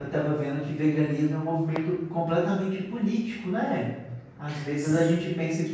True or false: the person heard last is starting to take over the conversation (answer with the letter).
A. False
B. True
A